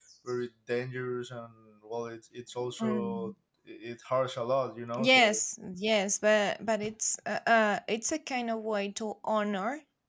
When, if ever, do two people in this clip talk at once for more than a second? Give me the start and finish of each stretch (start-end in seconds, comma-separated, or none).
none